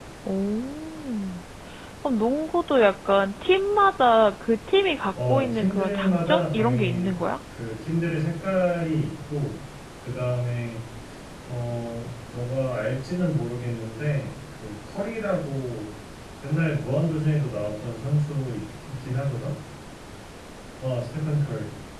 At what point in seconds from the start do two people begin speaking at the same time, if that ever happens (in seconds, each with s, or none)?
5.2 s